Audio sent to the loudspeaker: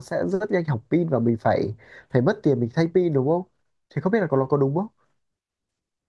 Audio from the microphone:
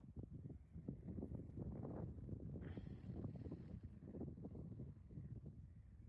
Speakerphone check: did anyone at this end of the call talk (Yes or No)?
No